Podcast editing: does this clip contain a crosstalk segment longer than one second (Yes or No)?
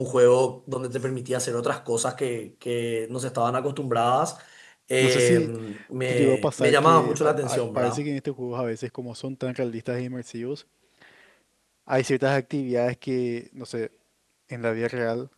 Yes